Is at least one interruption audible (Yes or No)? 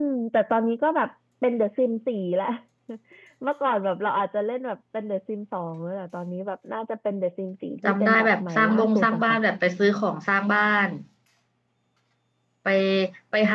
Yes